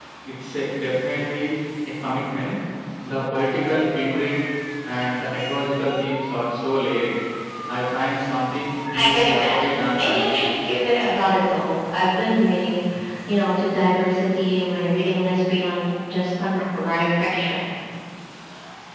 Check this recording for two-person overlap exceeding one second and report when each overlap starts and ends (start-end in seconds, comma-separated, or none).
9.0-10.5